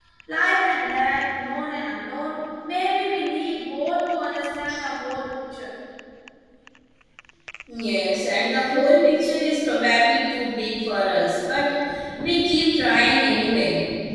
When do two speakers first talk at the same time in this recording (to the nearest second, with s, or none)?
none